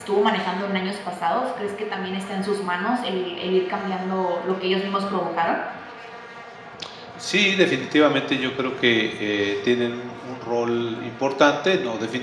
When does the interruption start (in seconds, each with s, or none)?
none